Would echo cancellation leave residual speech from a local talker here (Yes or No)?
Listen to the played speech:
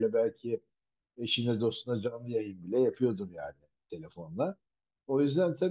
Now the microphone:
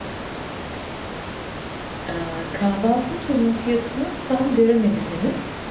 Yes